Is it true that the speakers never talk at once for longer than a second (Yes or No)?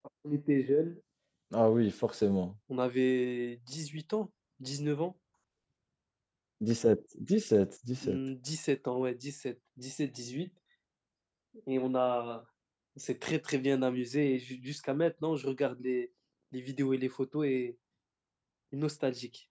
Yes